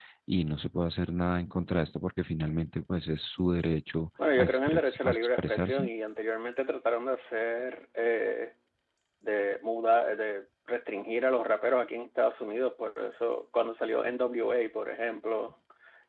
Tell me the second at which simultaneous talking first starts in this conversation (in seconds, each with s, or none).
4.2 s